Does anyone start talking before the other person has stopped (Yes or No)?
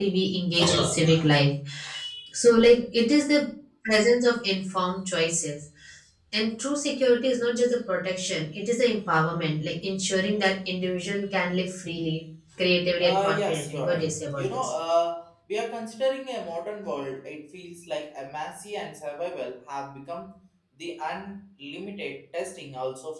Yes